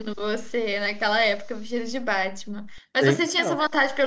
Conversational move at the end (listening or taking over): listening